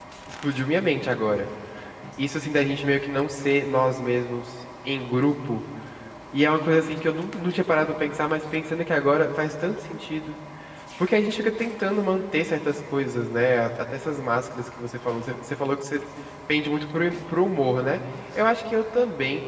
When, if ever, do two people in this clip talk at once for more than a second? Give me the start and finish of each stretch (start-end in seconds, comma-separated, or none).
none